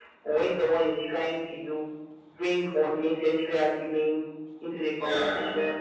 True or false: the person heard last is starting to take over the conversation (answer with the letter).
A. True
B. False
B